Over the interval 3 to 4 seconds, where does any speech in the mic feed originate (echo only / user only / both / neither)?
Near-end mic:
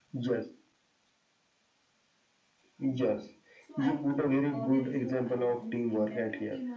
both